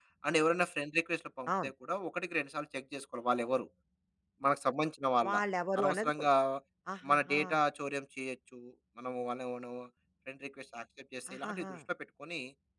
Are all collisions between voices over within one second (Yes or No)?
Yes